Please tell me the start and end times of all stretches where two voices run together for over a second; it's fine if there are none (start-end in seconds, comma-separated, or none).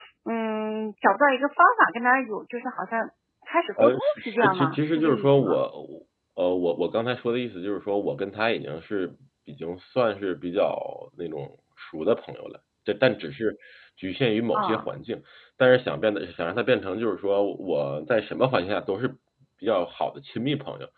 3.8-5.6